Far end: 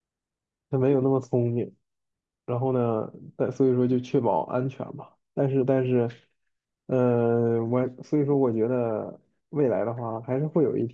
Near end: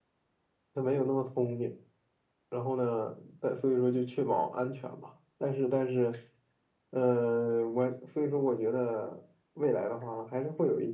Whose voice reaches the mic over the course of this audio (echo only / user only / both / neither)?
echo only